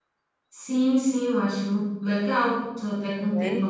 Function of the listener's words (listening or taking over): listening